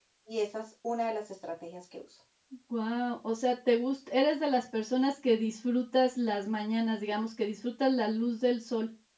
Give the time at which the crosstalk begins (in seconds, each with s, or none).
none